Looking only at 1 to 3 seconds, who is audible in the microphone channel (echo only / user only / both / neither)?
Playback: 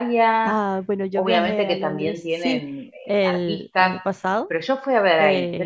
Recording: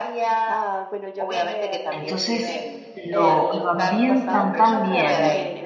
both